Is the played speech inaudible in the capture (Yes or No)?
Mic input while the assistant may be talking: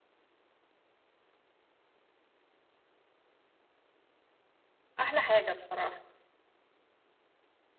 Yes